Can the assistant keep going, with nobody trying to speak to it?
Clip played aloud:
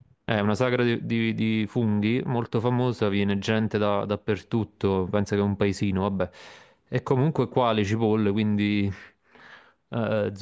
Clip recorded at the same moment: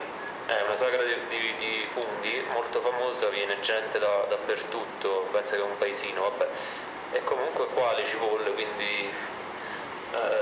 Yes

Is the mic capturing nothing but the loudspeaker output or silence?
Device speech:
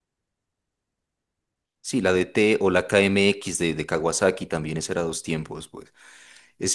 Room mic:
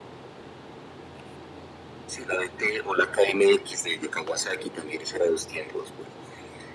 Yes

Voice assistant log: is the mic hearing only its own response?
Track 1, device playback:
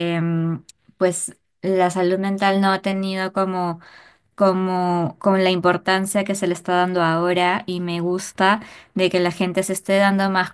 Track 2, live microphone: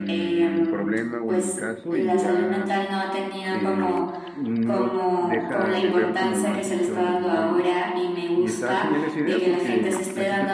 No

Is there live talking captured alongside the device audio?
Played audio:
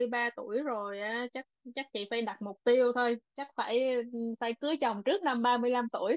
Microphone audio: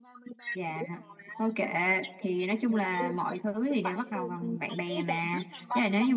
Yes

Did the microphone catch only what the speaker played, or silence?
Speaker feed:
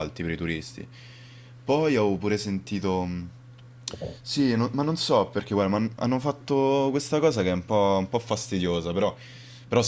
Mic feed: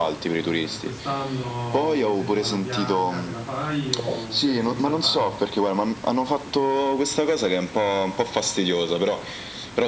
No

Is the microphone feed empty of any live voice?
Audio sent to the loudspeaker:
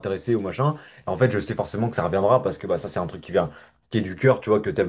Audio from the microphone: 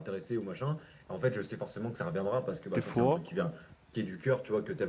No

